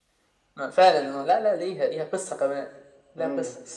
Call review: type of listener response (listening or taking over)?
taking over